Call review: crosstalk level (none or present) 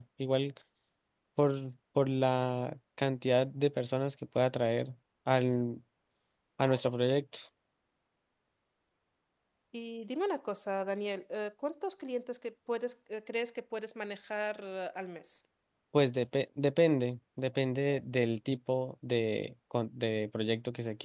none